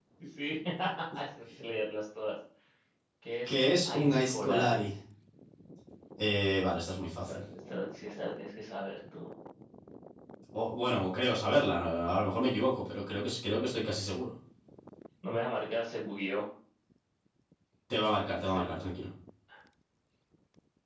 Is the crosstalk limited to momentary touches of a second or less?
No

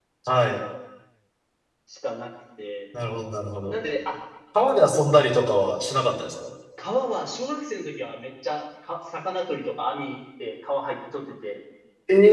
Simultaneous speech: No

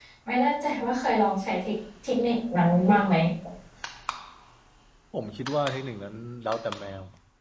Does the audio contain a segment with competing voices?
No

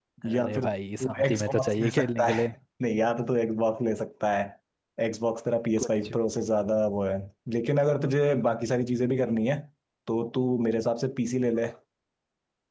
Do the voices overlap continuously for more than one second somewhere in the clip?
Yes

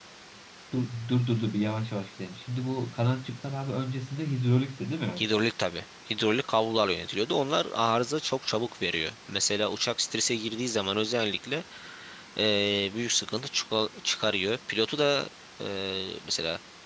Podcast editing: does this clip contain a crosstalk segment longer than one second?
No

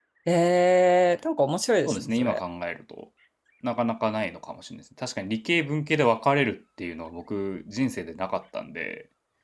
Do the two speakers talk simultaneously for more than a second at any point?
No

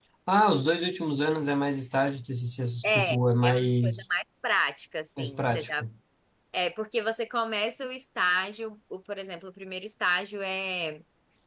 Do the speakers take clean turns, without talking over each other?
No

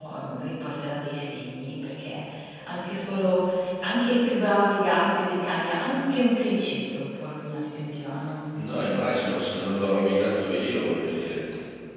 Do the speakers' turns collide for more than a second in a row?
No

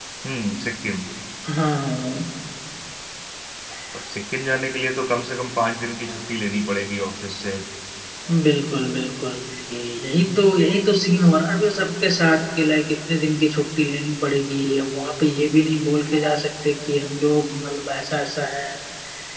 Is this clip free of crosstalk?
Yes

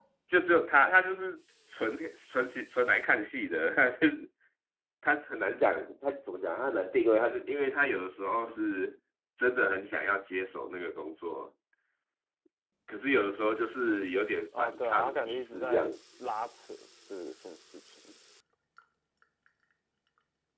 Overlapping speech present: Yes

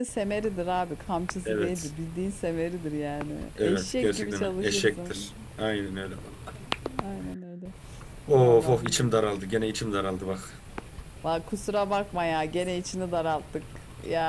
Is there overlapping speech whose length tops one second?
Yes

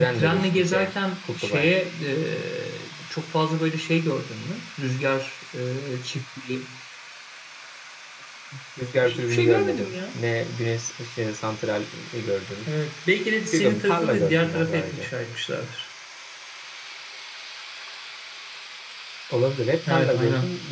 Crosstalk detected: Yes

